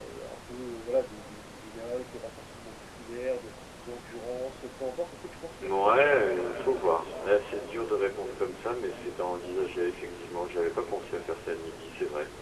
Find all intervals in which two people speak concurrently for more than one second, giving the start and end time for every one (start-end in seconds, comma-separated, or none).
5.6-6.9